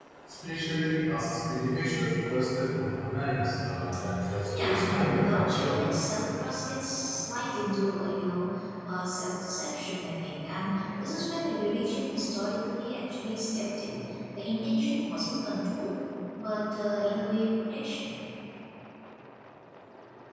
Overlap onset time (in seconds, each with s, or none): 4.5 s